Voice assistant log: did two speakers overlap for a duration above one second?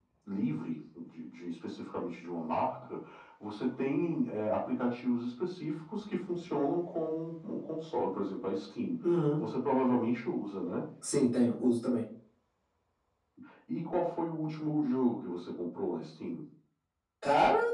No

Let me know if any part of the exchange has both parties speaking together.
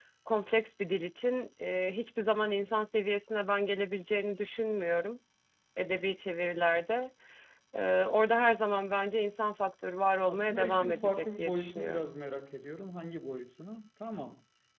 Yes, from 10.2 s

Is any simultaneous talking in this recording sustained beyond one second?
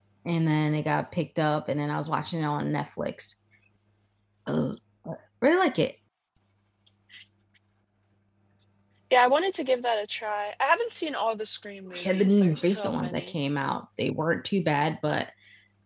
Yes, from 11.9 s

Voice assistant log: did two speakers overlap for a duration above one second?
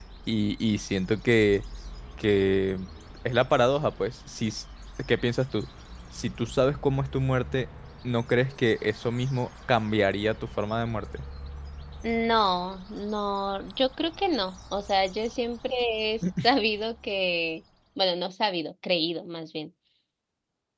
No

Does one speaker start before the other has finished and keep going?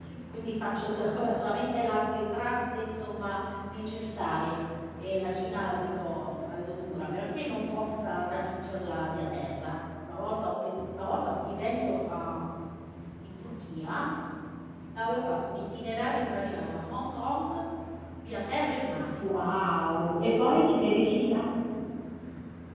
No

